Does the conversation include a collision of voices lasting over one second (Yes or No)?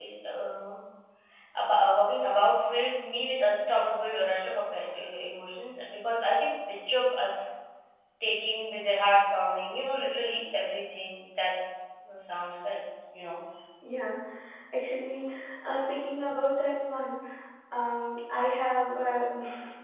No